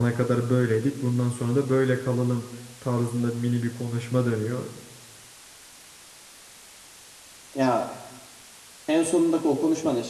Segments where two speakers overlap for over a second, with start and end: none

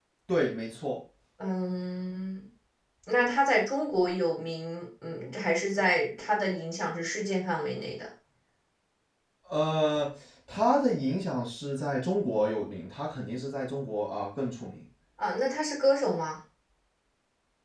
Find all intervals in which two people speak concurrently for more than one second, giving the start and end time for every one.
none

